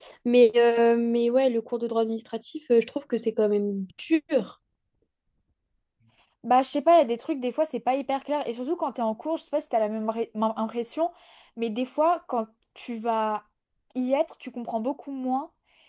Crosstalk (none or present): none